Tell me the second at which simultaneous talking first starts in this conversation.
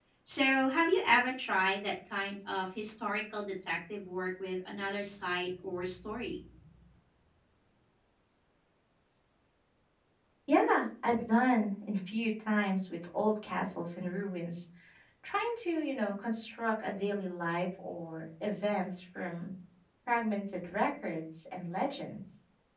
none

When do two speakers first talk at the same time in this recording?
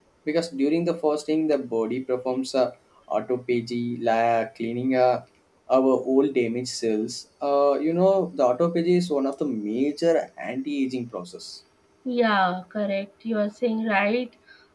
none

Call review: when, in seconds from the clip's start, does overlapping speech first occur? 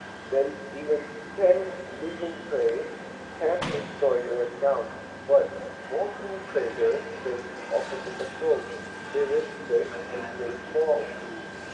9.8 s

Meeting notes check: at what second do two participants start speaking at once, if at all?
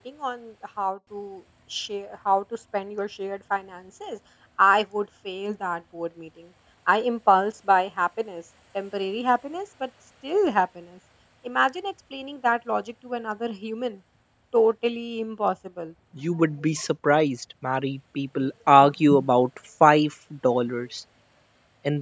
none

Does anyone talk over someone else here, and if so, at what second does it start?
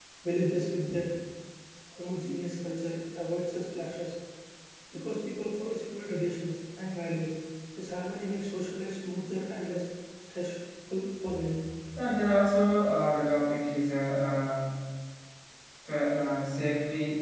none

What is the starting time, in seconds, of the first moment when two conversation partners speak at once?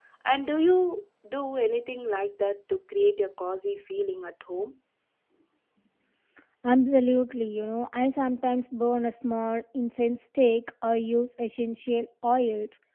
none

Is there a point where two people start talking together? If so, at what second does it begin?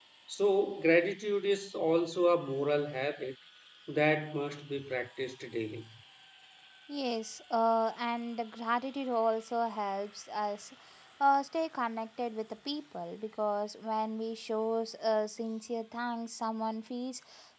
none

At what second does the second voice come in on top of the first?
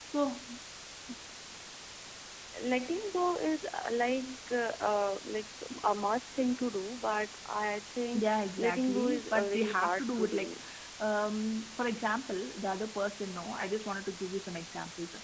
8.1 s

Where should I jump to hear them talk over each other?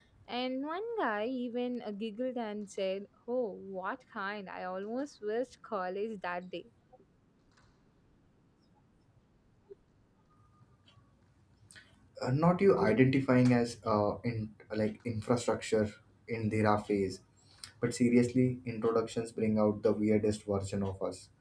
none

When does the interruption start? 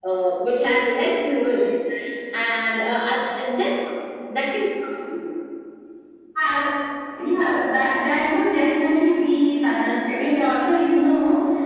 none

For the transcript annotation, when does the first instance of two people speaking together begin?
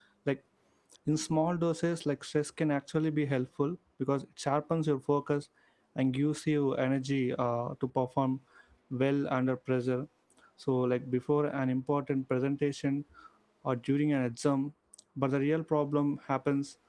none

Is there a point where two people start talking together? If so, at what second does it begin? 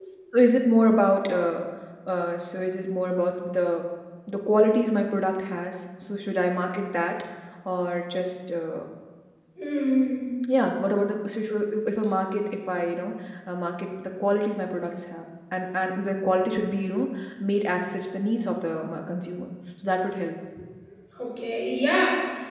none

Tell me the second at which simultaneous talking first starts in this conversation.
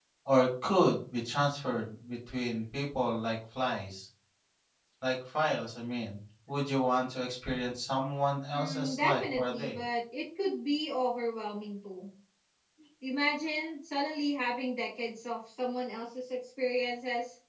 8.5 s

